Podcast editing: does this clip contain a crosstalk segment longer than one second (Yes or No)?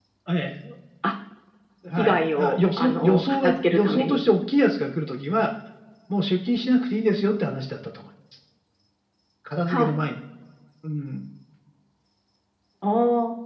Yes